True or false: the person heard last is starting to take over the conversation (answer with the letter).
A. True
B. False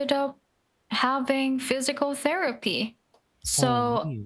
B